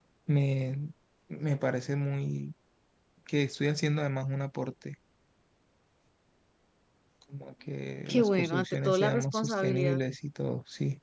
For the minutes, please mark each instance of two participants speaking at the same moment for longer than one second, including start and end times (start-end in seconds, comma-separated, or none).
8.1-10.0